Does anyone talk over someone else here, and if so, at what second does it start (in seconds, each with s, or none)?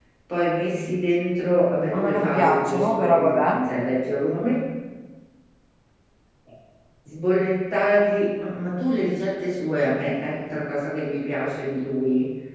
1.9 s